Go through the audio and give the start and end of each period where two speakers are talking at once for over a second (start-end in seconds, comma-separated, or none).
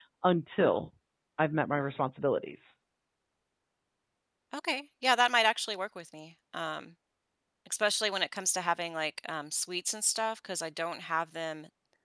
none